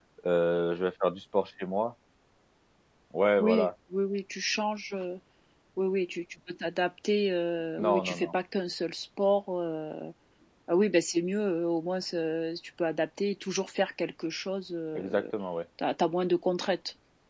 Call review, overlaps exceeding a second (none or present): none